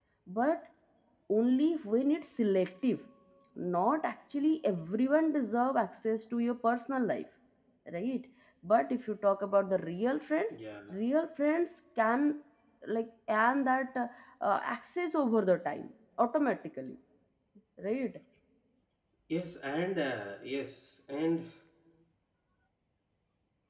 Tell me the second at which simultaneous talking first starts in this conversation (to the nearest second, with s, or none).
none